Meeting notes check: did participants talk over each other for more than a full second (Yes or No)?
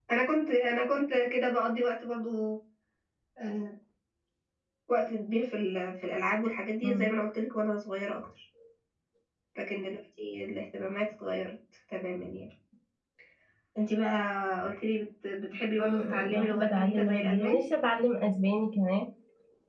Yes